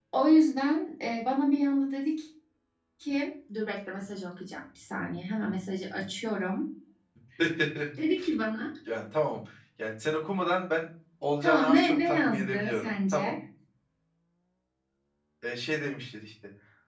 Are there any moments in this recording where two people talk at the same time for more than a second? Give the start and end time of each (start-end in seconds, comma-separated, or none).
11.4-13.3